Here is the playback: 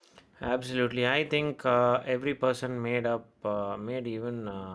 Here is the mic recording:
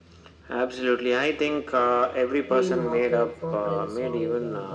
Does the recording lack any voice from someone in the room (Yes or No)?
No